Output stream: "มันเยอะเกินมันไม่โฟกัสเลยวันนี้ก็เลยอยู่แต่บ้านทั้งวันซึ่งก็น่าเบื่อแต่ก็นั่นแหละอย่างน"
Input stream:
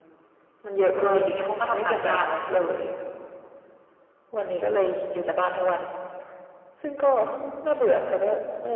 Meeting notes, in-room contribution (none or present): present